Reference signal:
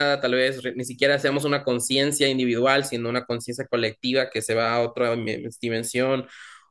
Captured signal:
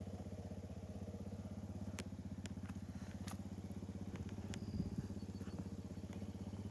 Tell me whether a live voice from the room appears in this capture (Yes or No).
No